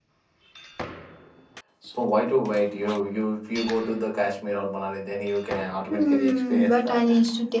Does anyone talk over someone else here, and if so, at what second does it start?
5.9 s

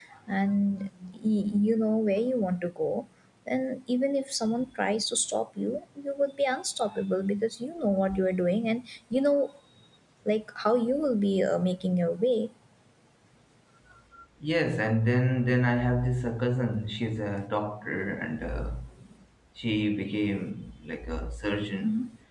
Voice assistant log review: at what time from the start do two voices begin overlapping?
none

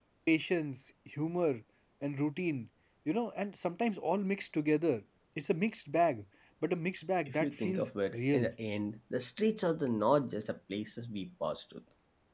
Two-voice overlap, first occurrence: 7.3 s

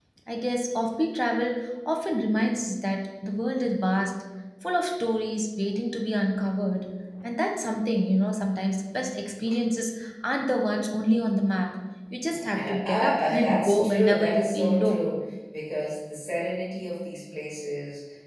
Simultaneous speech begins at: 12.5 s

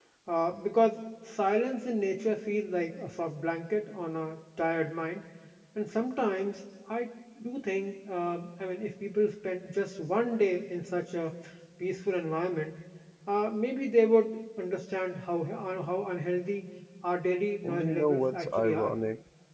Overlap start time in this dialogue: 17.6 s

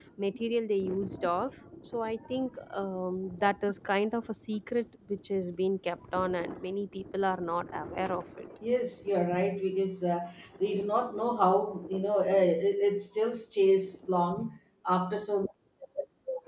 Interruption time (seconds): none

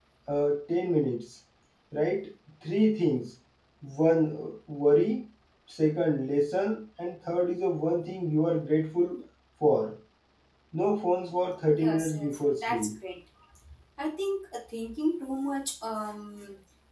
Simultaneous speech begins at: 11.7 s

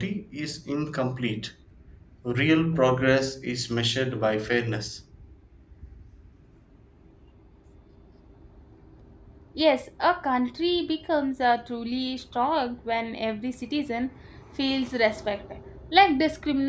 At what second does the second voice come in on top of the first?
none

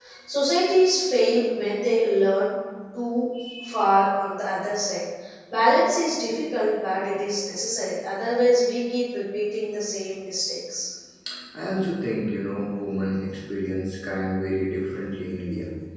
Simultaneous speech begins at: none

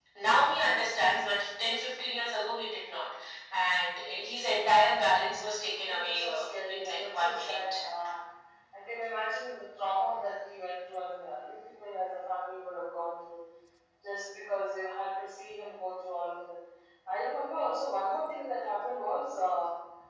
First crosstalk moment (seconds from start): 5.8 s

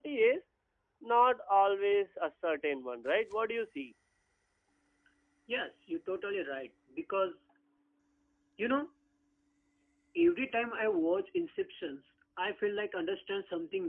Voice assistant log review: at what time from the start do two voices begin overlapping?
none

